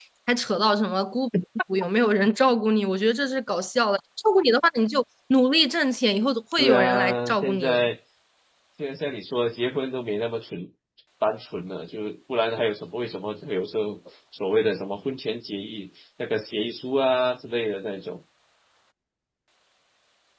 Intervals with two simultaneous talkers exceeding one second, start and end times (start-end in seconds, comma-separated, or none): 6.6-7.9